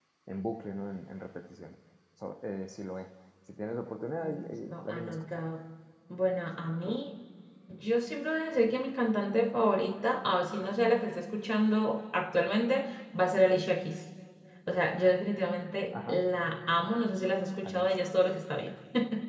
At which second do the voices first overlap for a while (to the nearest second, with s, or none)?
4 s